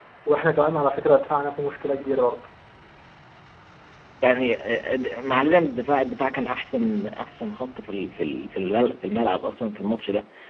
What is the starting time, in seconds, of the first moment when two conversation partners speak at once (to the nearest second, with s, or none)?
none